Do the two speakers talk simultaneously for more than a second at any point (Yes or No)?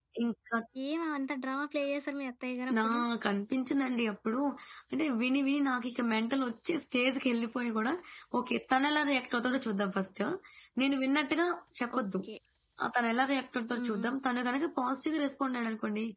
No